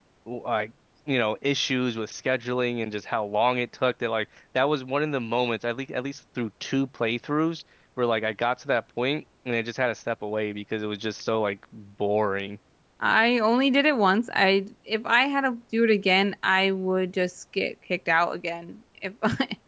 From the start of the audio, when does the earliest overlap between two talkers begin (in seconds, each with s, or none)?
none